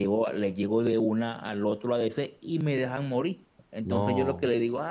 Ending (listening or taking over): listening